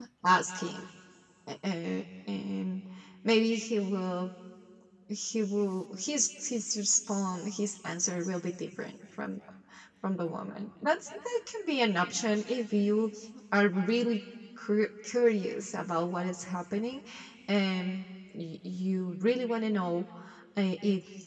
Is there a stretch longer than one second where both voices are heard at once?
No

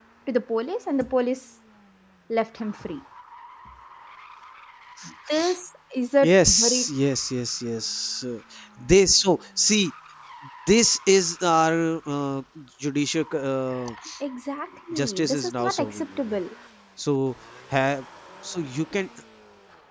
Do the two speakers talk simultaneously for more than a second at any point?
Yes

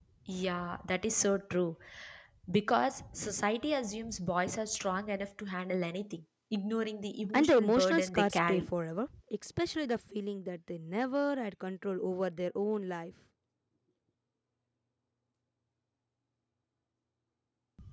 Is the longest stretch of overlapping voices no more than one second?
No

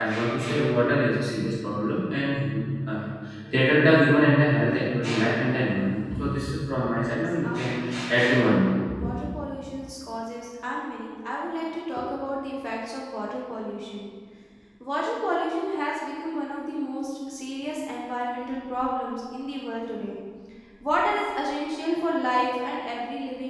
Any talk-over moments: Yes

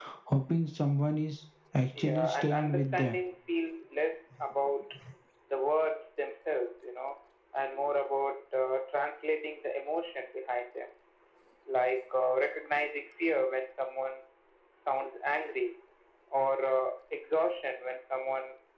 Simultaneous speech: Yes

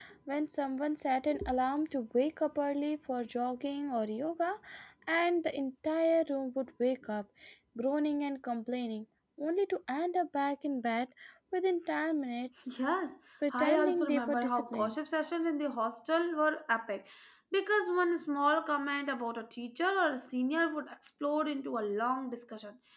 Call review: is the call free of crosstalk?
No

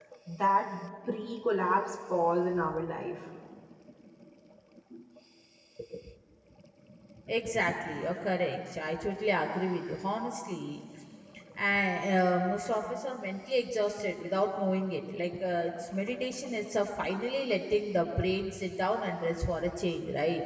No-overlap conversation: Yes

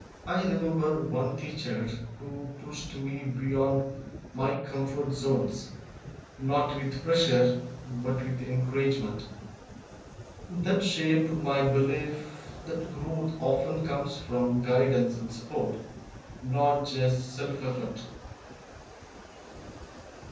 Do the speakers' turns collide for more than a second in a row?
No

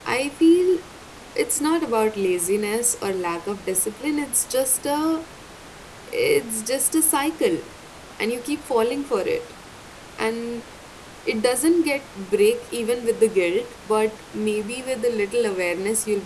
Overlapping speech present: No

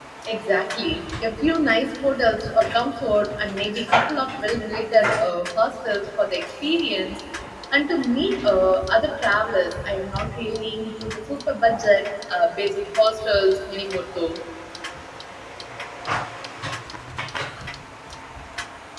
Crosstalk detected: No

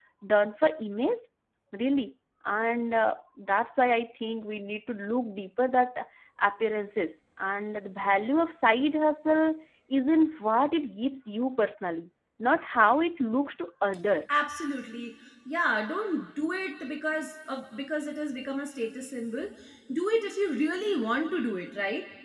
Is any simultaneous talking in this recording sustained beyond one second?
No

